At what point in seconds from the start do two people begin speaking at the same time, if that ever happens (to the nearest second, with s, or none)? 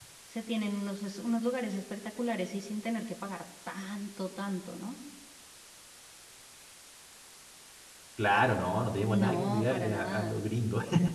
9 s